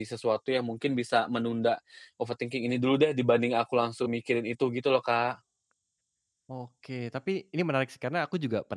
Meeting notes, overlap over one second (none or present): none